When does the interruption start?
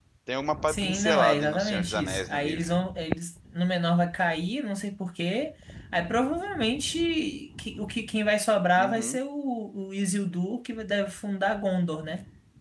0.7 s

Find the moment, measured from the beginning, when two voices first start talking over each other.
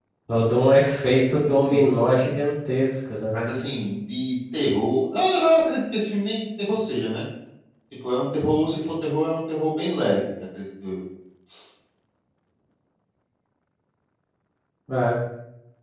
1.1 s

